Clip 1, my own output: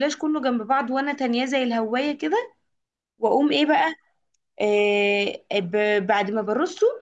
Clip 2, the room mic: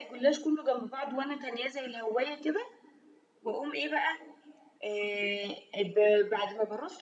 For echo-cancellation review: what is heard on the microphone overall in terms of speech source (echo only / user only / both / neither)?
echo only